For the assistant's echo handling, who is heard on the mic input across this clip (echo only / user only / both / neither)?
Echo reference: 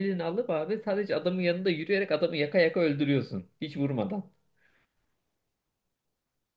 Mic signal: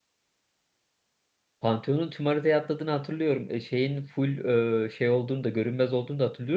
user only